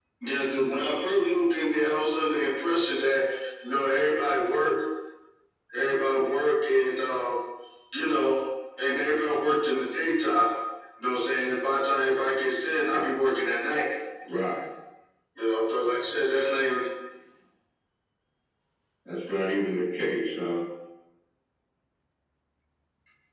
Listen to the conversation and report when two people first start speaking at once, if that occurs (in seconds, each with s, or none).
none